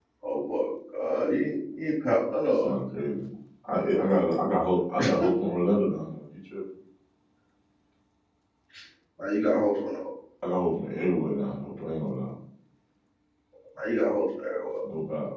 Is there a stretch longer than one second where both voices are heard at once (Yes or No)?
No